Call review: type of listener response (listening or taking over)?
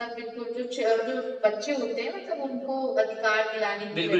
taking over